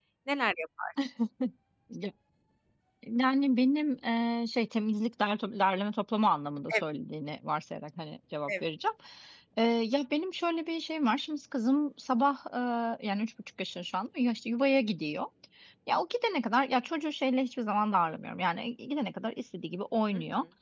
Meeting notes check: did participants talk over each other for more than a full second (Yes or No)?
No